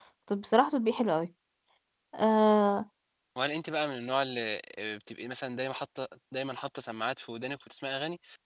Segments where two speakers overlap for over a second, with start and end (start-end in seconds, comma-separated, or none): none